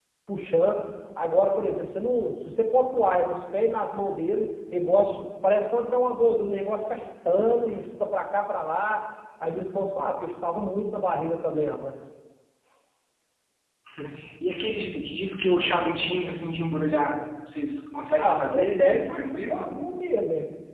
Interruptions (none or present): present